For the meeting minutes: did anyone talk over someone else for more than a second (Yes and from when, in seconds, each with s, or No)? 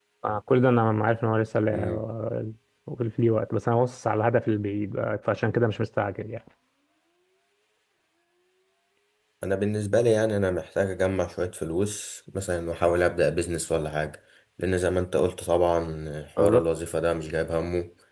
No